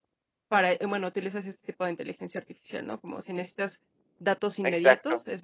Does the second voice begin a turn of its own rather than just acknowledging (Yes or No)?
No